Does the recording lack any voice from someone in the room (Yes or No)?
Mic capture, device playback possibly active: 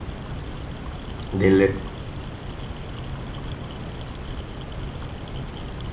No